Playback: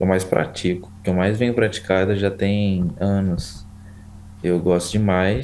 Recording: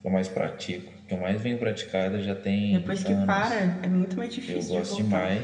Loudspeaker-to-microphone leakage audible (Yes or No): Yes